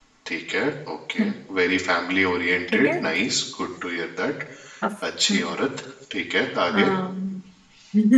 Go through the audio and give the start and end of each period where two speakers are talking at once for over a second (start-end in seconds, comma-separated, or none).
none